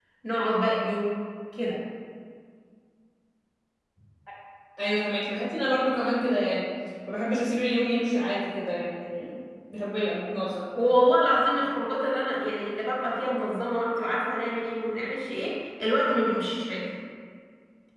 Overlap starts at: none

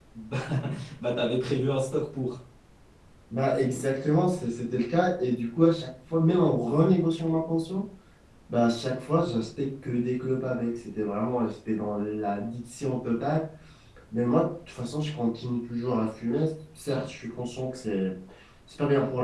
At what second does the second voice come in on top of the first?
none

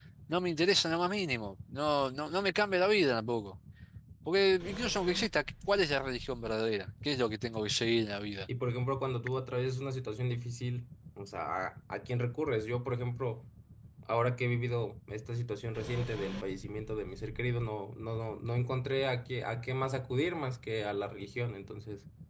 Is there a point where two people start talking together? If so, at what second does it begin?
none

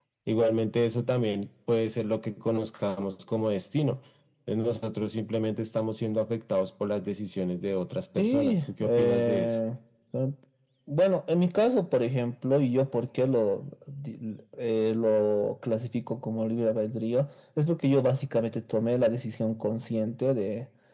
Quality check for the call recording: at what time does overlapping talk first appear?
8.2 s

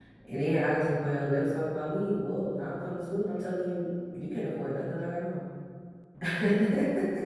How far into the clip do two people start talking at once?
none

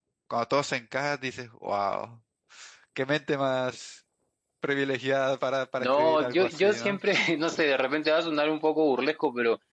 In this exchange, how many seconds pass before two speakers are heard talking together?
5.8 s

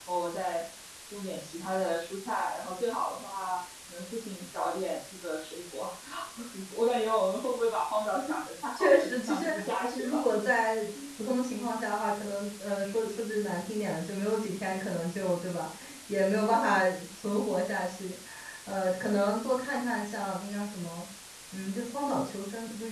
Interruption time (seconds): 8.8 s

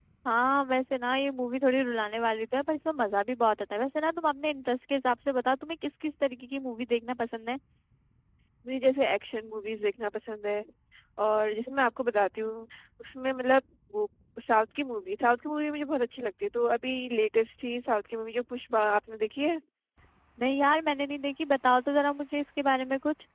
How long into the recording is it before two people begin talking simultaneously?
none

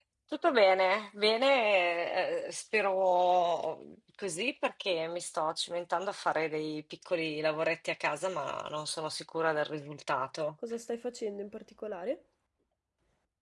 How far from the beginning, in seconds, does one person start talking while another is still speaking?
none

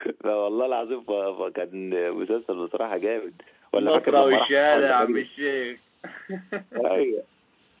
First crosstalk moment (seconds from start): 3.8 s

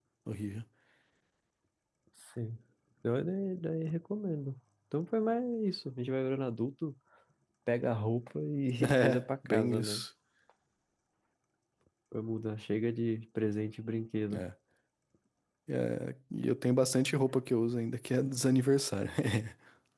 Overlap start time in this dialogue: 8.8 s

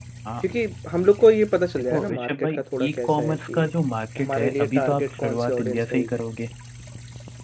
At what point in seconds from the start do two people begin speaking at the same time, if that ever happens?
1.9 s

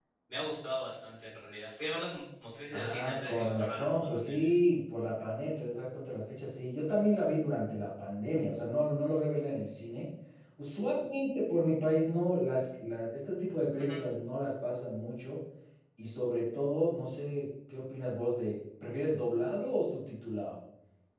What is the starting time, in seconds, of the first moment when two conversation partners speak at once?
2.7 s

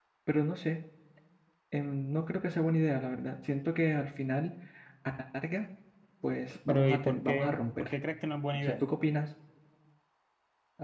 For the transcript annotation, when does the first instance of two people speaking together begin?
6.7 s

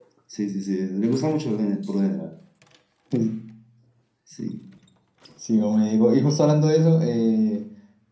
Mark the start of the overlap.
none

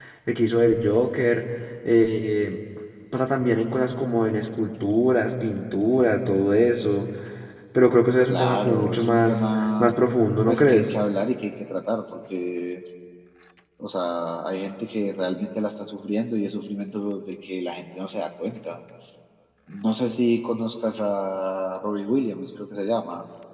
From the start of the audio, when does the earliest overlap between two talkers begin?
8.3 s

